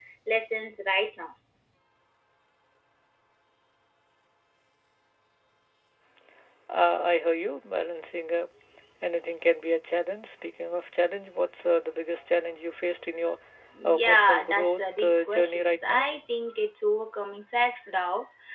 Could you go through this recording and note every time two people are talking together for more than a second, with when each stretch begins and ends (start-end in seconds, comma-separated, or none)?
13.8-16.1